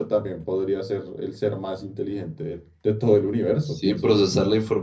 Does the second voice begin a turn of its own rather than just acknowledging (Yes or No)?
Yes